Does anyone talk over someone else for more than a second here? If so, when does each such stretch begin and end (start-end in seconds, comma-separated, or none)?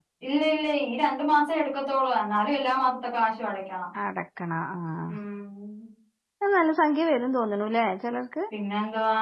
none